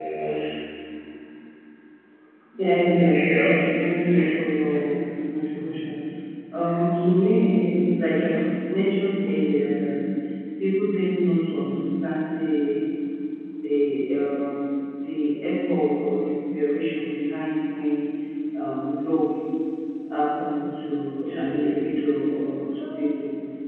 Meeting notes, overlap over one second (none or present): present